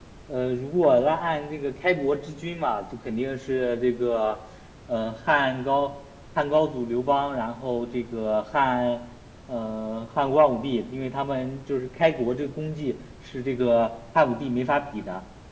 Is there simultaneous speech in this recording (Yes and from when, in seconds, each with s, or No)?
No